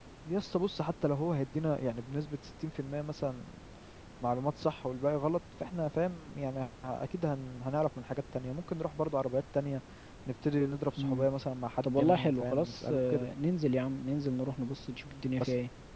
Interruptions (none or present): present